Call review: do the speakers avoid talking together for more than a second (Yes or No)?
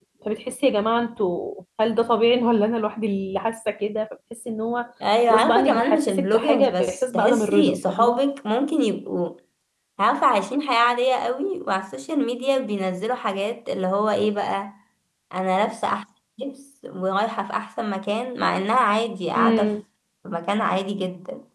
No